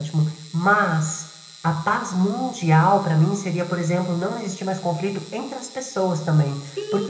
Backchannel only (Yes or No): No